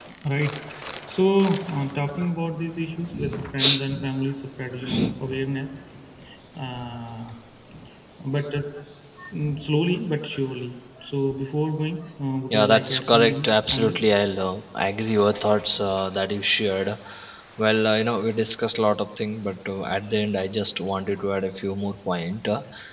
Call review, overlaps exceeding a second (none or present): present